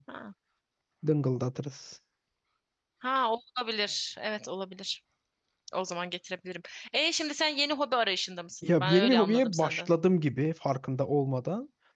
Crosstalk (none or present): present